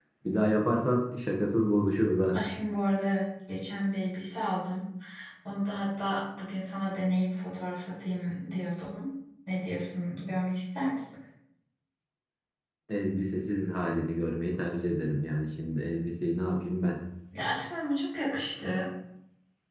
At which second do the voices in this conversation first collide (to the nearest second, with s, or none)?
none